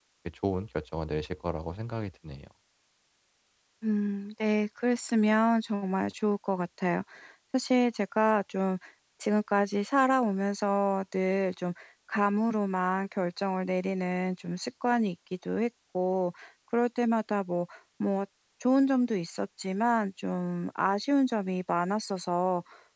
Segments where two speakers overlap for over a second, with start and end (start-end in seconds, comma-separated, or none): none